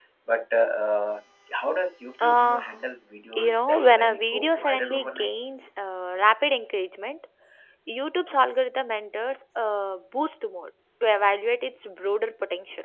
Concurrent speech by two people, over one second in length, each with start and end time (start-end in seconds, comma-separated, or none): 3.3-5.3